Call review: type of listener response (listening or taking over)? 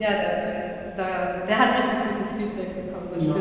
taking over